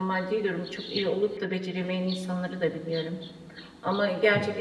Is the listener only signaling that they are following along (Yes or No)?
Yes